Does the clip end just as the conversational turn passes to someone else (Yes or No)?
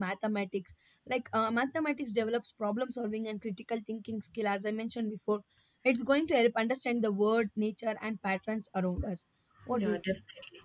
Yes